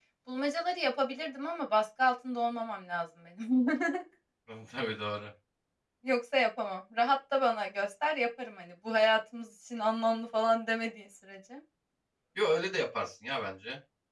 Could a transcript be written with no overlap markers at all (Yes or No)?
Yes